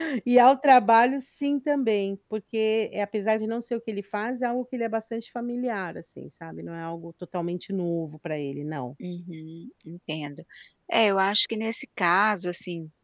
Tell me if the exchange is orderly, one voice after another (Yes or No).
Yes